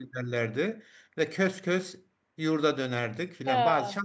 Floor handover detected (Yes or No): No